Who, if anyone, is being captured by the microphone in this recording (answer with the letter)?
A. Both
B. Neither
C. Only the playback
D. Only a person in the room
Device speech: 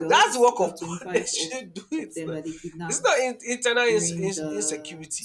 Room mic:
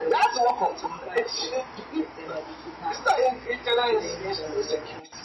C